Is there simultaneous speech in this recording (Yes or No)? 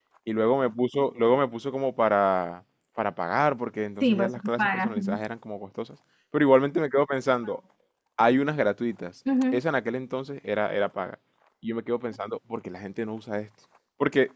Yes